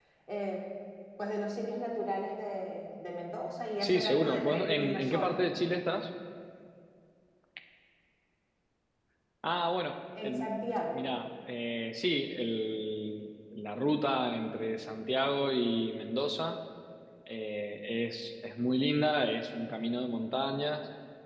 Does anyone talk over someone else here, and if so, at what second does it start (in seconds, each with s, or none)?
3.8 s